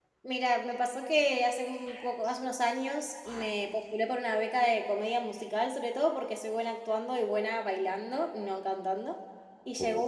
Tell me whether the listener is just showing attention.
Yes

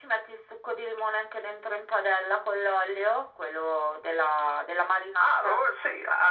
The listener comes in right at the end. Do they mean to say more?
Yes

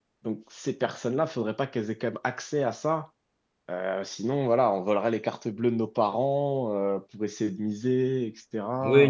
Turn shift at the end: Yes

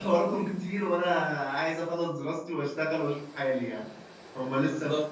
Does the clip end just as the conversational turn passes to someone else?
No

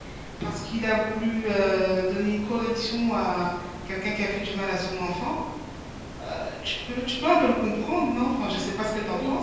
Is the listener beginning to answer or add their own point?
Yes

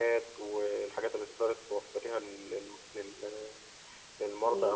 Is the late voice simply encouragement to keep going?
Yes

